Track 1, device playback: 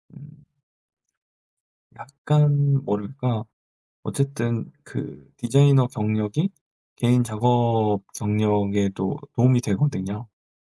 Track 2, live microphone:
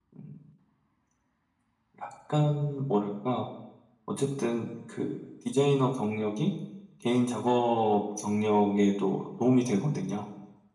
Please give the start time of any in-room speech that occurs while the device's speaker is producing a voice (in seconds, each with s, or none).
none